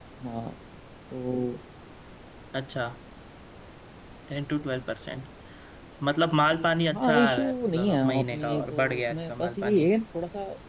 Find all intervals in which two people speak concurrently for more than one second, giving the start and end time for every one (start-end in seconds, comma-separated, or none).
7.0-9.9